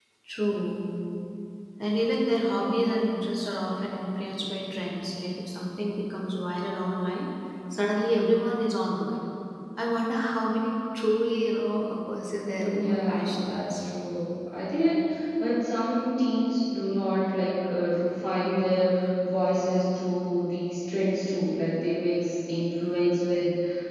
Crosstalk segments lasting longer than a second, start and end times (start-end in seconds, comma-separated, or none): 12.4-13.8